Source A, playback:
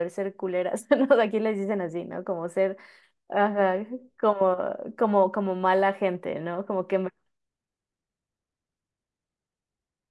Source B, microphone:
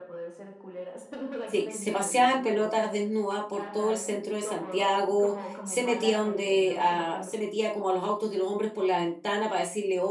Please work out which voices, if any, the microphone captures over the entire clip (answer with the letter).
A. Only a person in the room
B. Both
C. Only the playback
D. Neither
B